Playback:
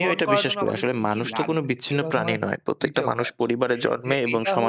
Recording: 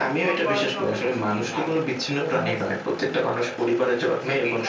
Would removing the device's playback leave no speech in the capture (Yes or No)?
Yes